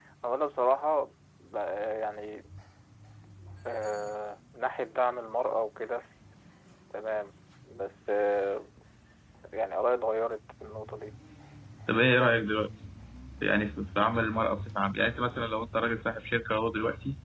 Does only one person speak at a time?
Yes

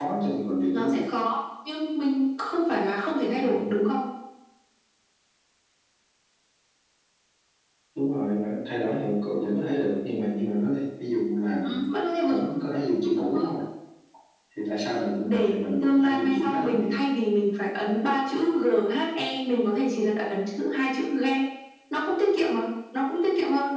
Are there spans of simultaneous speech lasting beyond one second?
Yes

